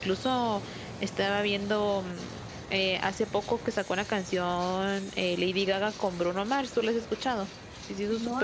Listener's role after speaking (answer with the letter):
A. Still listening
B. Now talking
B